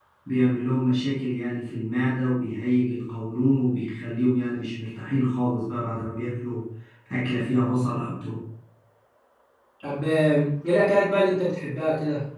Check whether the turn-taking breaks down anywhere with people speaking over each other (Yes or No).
No